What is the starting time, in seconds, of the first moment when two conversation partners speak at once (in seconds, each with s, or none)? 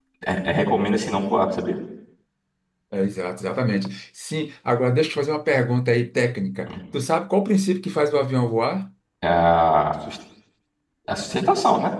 none